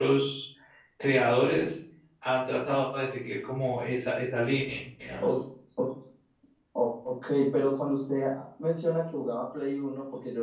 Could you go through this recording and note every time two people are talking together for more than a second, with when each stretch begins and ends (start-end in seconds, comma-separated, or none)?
none